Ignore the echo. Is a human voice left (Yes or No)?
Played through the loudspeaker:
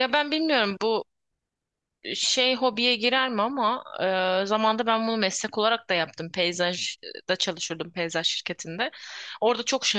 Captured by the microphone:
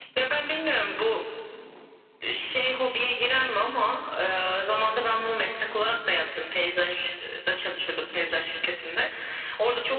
No